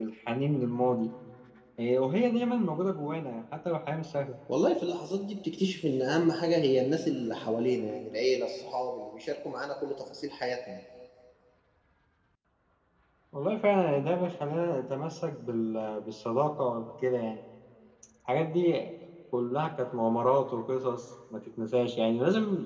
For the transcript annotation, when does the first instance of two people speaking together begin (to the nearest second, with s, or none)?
none